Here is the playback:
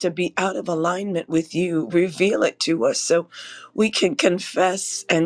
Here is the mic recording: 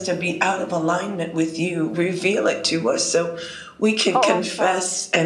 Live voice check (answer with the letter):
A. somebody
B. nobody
A